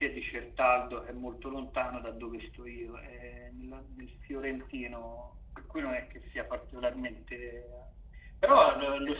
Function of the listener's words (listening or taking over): listening